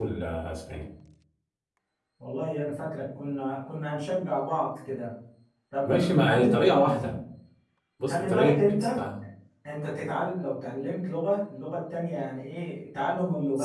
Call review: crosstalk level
present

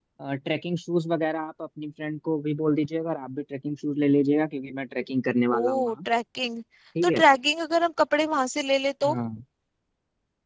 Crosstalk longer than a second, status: none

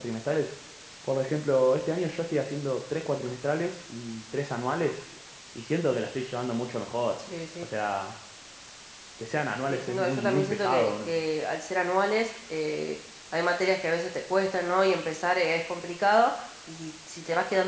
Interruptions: present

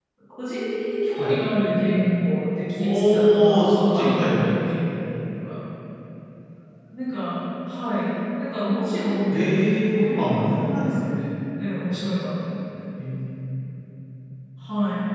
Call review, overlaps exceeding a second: present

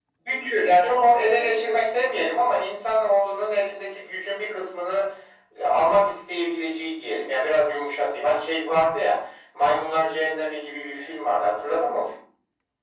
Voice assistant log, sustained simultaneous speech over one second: present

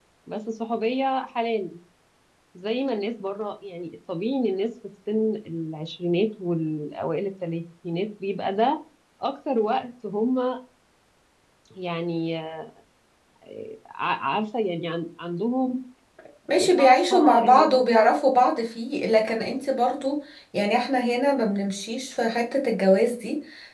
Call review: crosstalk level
present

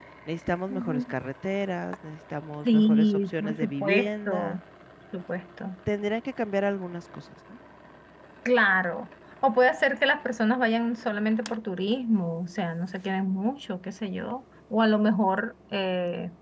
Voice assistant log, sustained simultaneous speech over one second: present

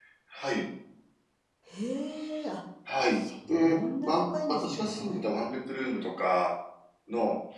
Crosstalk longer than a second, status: present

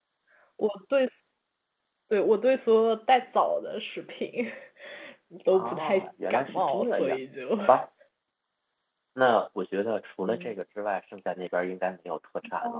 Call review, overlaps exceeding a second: present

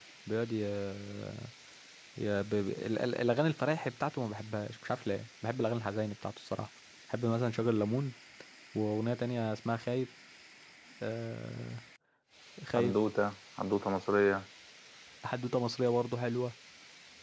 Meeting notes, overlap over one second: none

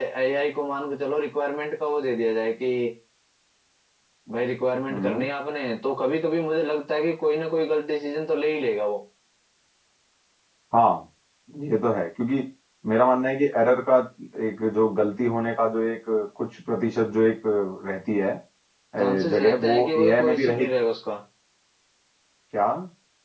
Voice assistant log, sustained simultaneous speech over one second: present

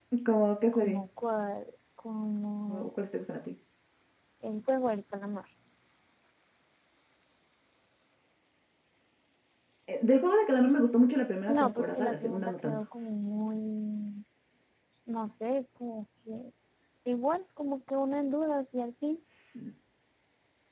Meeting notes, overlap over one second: present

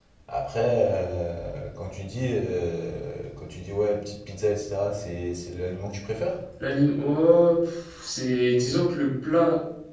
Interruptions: none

